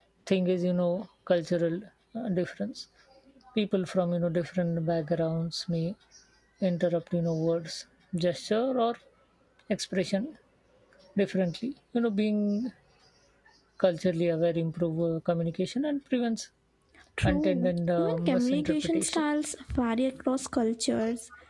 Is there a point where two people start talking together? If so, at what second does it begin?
17.2 s

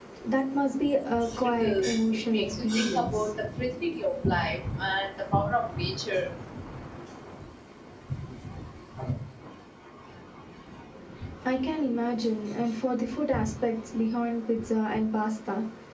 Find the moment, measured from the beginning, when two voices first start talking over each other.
1.4 s

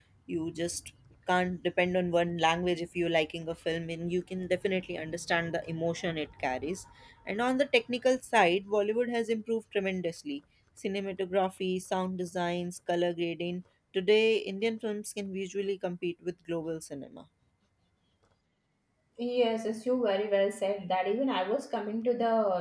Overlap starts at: none

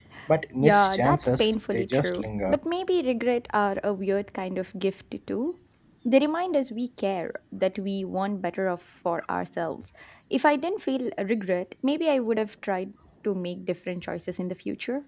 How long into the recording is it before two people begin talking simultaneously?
0.6 s

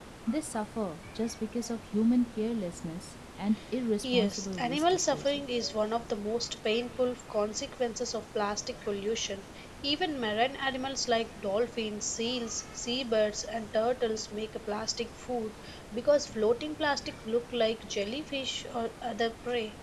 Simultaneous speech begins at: 4.0 s

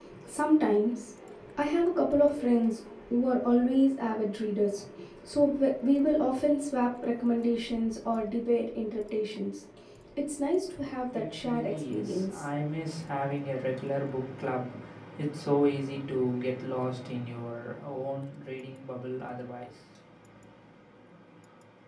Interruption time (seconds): 11.1 s

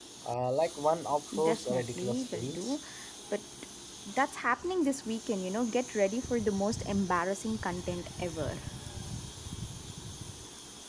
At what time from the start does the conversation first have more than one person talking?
1.3 s

